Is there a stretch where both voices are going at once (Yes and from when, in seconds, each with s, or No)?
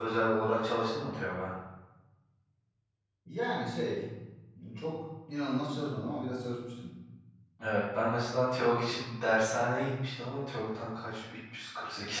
No